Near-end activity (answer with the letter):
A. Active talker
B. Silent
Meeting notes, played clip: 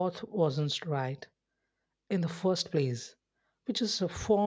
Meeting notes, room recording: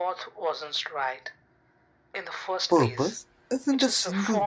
A